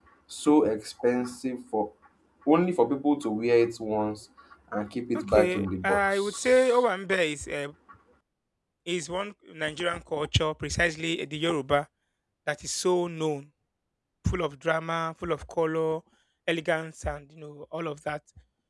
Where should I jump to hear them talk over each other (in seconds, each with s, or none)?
5.3 s